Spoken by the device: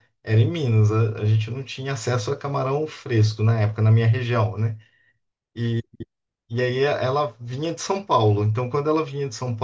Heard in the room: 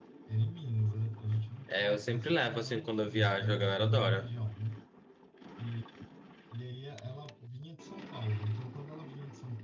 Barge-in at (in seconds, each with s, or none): 1.7 s